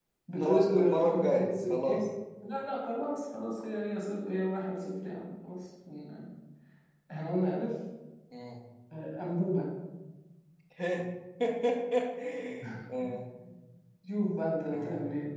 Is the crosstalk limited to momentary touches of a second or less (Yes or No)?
No